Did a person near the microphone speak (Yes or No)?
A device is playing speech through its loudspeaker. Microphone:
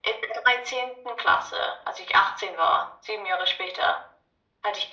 No